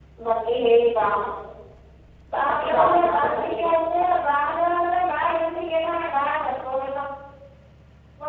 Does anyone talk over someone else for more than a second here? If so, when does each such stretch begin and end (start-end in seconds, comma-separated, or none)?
2.5-3.7